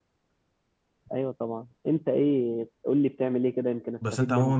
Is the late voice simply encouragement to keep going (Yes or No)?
No